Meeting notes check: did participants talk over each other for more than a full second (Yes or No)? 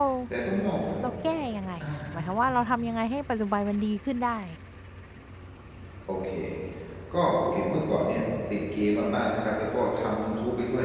No